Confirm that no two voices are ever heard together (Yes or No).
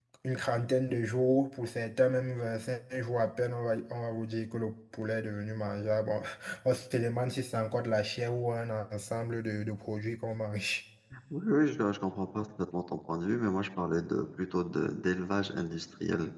Yes